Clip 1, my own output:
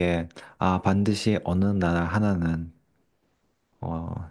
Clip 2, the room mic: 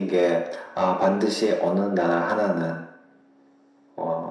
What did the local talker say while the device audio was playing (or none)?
none